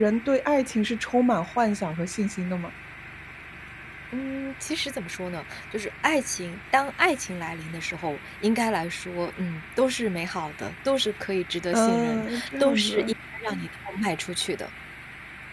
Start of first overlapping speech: 12 s

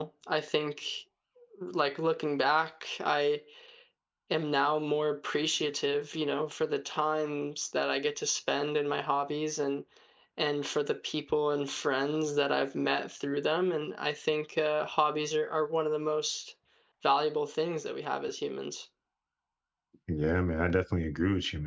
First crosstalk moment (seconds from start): none

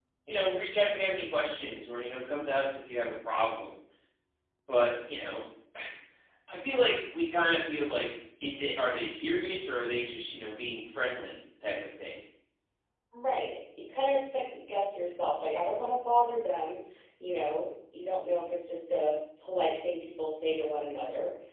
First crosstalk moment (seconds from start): none

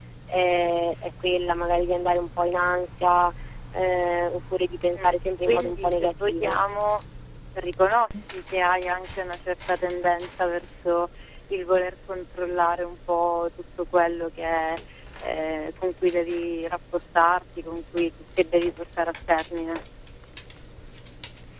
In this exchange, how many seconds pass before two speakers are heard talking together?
5 s

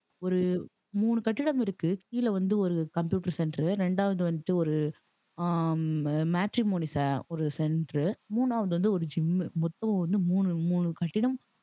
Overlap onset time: none

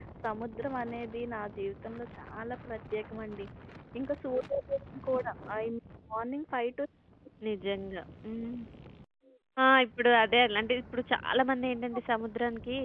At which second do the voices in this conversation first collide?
none

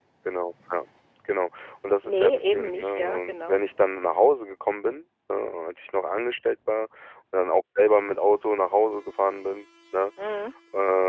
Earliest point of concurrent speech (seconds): 2 s

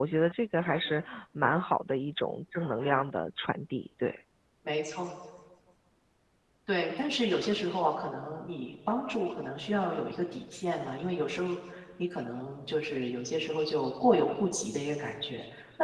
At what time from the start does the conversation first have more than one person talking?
none

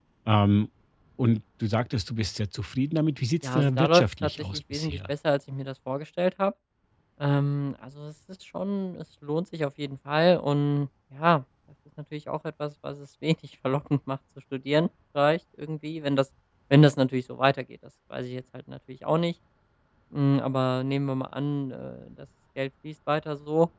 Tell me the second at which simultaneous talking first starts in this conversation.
3 s

